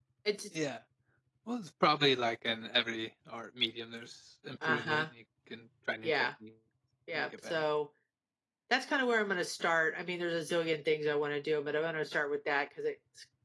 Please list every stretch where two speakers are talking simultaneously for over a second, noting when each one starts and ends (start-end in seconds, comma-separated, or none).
none